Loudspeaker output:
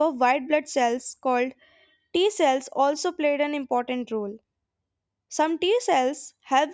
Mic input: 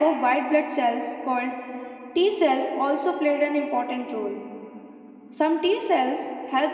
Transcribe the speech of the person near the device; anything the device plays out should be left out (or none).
none